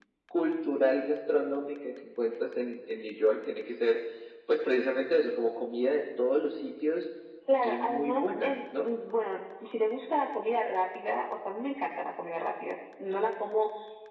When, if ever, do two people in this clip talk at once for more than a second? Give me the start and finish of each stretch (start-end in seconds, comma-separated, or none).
7.6-8.9